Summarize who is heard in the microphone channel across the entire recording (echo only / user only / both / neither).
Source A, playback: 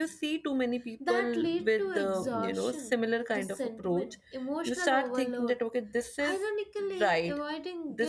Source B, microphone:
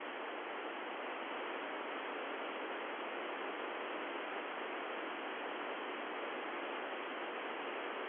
neither